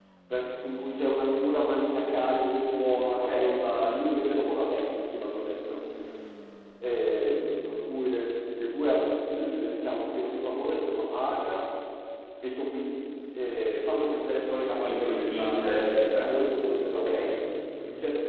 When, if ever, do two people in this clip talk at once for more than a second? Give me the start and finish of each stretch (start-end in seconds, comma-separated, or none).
14.7-16.3